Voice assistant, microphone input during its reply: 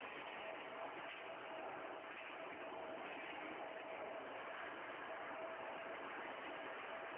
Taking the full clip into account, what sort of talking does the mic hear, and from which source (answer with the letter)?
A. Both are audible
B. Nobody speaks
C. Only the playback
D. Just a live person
B